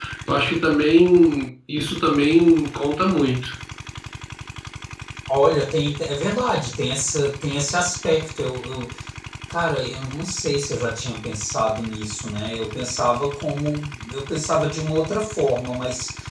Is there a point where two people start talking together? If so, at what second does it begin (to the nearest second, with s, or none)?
none